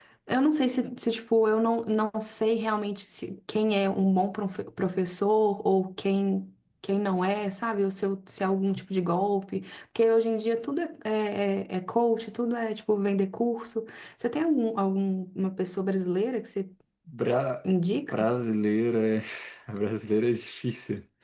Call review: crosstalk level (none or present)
none